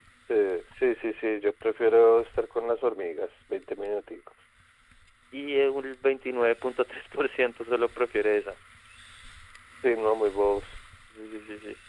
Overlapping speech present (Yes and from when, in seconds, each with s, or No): No